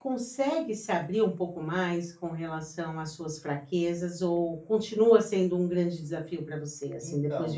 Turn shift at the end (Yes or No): Yes